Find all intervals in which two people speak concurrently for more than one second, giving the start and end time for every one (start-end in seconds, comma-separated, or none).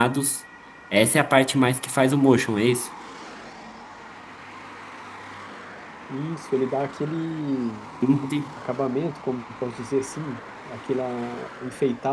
none